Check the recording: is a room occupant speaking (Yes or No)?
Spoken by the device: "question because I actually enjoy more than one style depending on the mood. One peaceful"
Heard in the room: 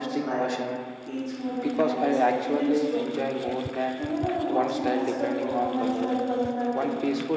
Yes